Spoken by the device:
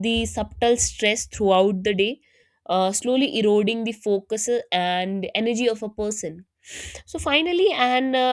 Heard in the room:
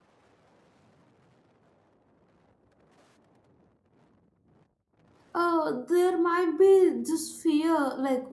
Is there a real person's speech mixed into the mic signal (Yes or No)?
Yes